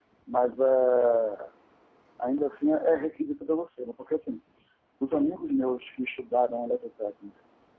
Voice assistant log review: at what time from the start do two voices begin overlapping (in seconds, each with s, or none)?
none